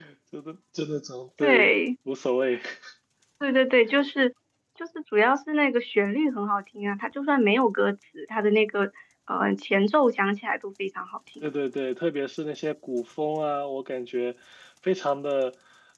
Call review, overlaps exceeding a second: none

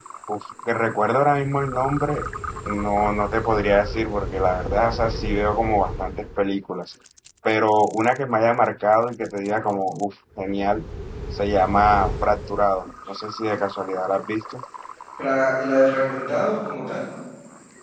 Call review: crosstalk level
none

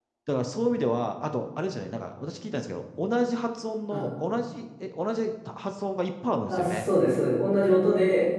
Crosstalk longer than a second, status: none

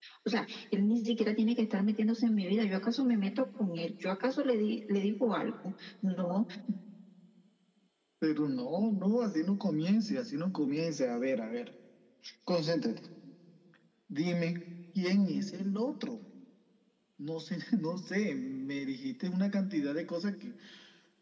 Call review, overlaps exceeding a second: none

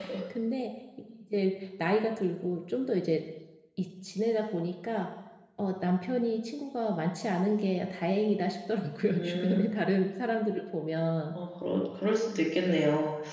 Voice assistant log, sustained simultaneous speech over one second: none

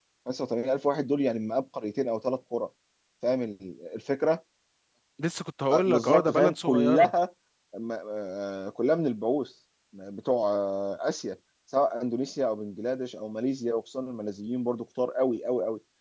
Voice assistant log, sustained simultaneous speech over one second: present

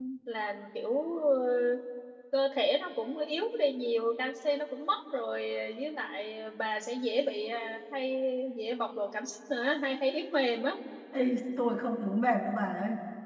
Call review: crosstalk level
none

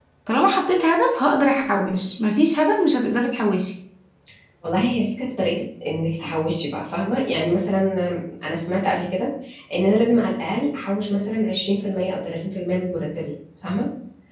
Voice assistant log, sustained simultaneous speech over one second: none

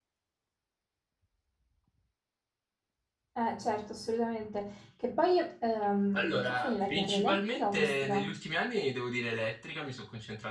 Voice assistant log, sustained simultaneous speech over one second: present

